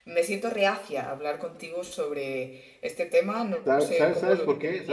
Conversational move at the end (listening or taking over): taking over